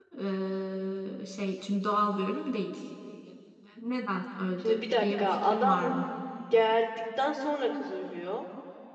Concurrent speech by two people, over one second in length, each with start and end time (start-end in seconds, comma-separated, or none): 4.6-5.9